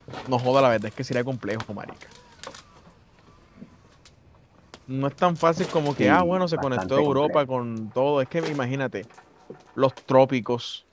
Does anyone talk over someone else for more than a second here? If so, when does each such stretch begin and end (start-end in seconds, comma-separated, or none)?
6.0-7.4